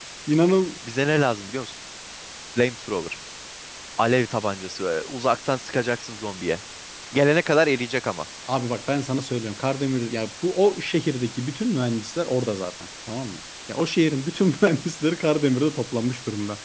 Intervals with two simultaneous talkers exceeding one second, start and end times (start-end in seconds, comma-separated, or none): none